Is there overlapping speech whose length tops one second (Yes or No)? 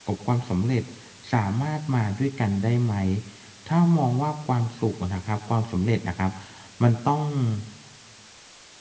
No